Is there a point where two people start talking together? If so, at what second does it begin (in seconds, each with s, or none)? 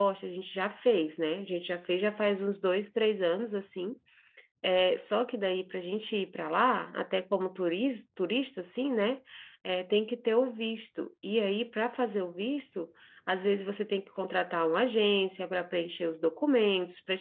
none